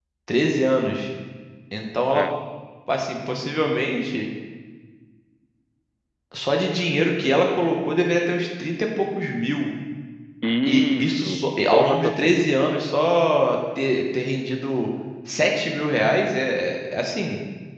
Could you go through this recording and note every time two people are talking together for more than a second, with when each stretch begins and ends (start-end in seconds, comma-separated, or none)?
10.6-12.5